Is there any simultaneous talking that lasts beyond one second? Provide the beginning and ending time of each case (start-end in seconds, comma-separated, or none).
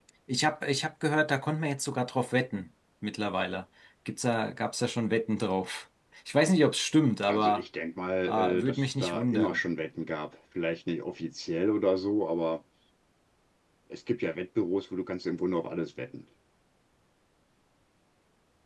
8.2-9.6